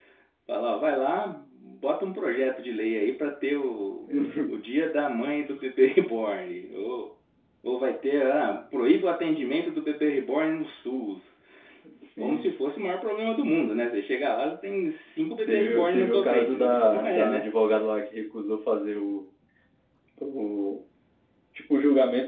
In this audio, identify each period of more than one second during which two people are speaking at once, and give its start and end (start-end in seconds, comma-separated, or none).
15.5-17.4